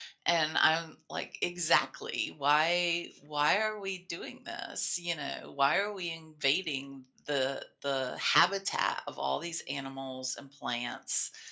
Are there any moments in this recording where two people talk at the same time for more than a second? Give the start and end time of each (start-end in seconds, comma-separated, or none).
none